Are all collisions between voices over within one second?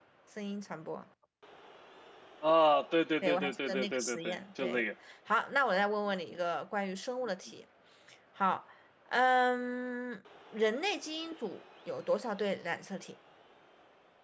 No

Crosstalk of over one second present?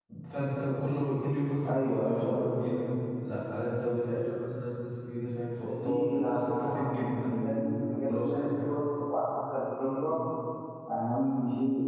Yes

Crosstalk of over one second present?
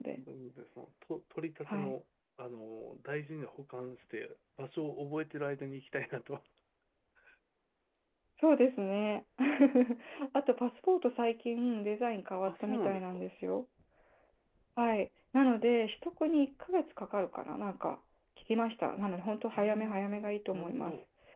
Yes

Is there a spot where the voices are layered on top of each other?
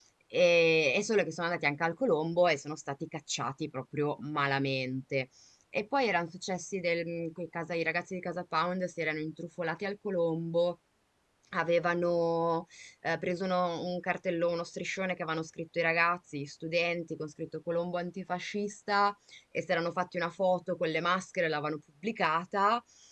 No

